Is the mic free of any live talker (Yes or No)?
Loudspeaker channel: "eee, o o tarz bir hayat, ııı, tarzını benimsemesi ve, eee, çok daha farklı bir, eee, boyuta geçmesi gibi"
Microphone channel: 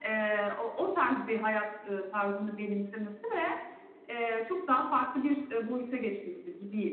Yes